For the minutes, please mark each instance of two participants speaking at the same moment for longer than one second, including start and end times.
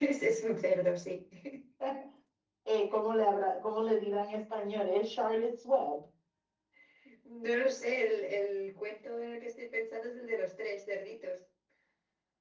none

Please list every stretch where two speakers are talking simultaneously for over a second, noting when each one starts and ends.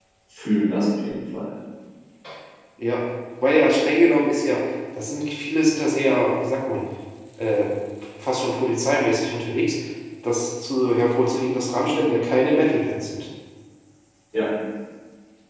none

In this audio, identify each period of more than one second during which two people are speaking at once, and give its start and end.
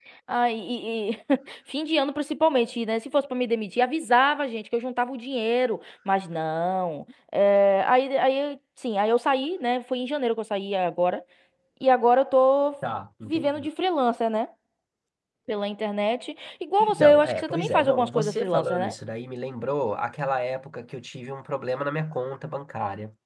16.8-18.9

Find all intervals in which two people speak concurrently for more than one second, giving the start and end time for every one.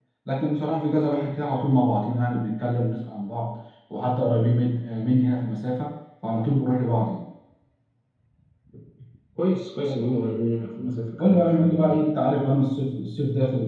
10.8-12.0

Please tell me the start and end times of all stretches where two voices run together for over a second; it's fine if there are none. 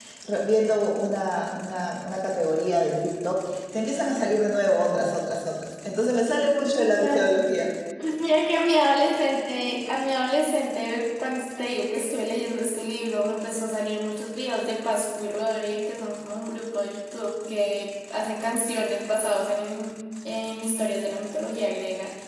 none

